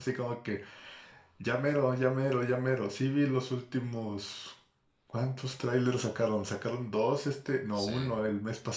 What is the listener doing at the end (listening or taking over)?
listening